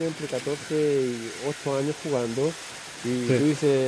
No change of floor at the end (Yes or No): Yes